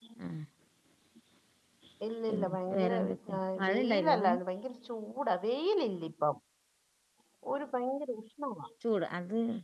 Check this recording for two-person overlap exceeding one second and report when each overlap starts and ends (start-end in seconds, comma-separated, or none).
2.3-4.3